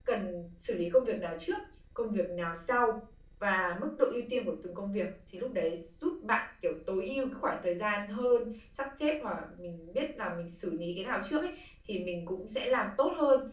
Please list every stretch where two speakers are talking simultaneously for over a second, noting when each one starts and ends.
none

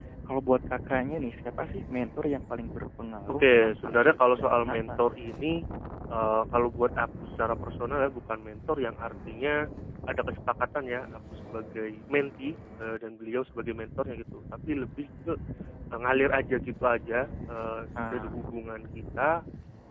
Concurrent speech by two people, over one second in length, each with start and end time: 3.3-5.0

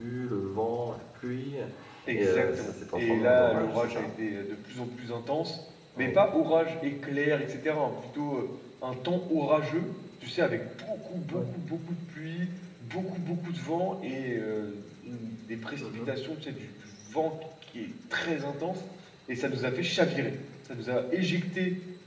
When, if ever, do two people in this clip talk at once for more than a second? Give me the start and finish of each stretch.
2.1-4.1

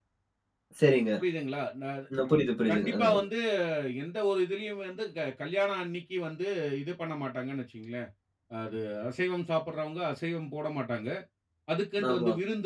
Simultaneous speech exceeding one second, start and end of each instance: none

